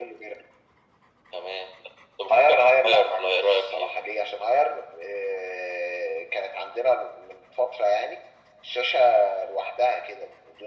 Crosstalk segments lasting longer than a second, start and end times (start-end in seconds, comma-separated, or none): 2.3-4.0